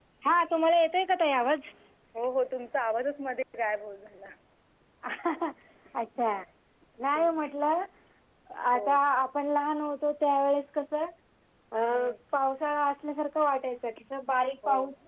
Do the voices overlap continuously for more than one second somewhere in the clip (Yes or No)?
No